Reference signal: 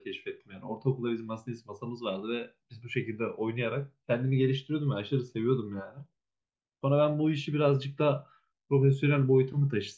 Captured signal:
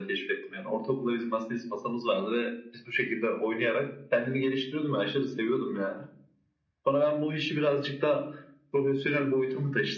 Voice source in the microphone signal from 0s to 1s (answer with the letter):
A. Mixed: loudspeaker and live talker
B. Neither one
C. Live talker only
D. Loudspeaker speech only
D